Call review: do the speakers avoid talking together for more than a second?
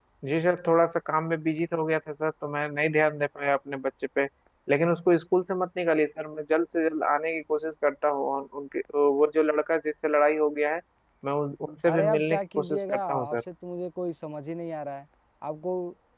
No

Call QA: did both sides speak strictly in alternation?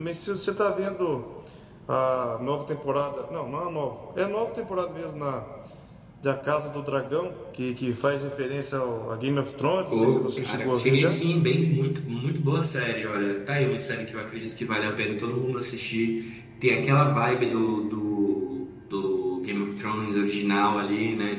No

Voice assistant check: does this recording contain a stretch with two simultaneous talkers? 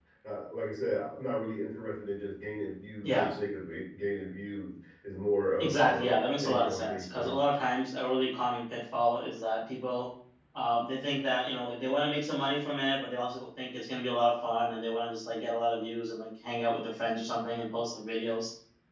Yes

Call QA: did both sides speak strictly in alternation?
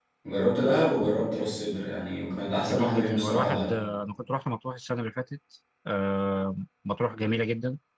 No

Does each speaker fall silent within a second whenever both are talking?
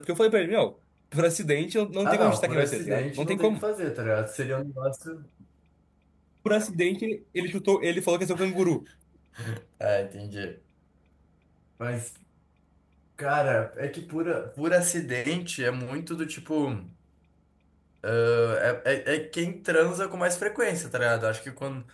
No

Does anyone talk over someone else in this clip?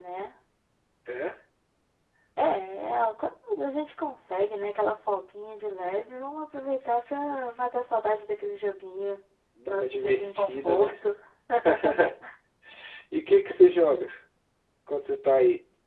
Yes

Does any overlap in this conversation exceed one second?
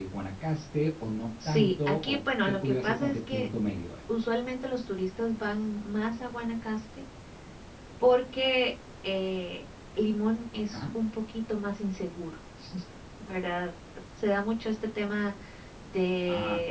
Yes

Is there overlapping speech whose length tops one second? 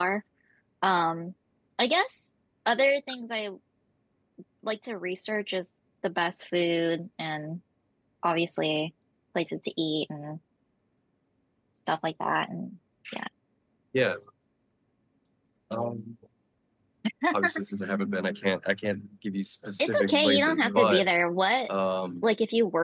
Yes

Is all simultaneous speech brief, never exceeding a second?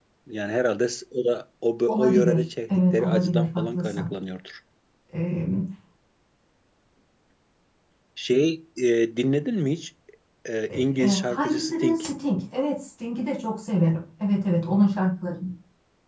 No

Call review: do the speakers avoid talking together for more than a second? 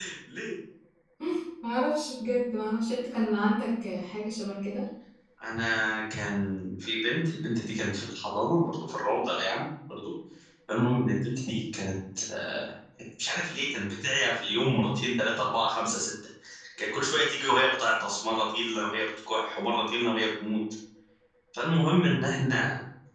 Yes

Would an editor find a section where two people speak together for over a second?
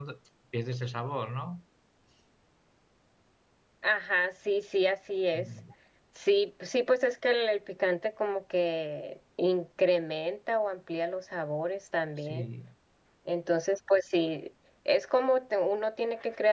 No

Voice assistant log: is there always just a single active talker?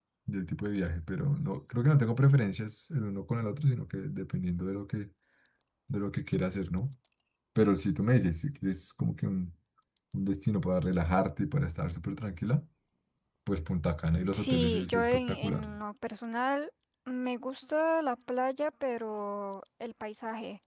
No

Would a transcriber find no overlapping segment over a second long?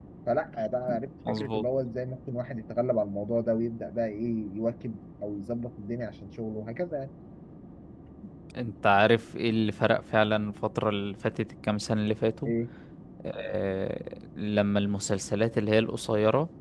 Yes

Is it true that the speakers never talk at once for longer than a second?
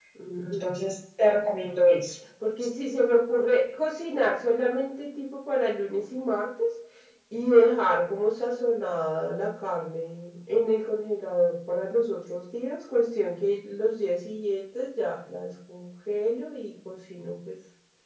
Yes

